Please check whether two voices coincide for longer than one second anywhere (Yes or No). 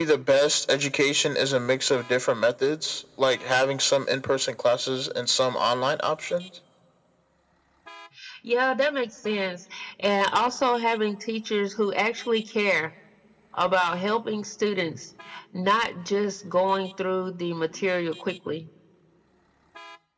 No